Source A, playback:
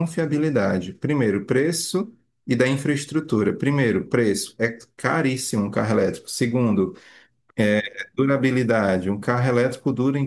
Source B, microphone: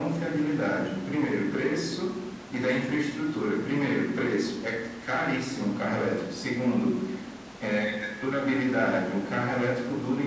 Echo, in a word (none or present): present